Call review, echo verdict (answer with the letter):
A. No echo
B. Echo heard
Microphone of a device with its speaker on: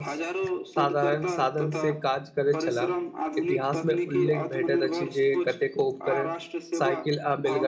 B